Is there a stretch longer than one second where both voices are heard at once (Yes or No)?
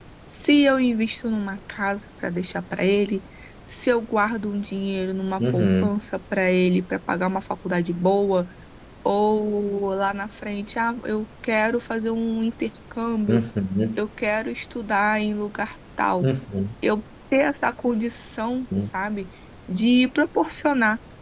No